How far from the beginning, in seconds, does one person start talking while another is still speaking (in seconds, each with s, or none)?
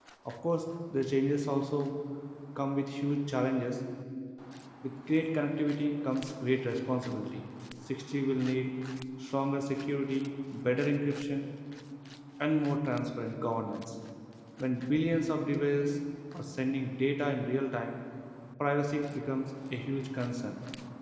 none